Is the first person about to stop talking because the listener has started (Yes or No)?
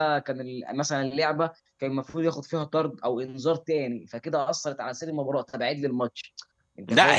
Yes